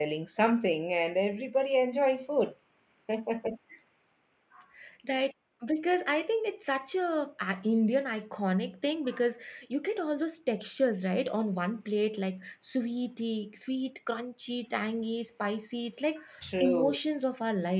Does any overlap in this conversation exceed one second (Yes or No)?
No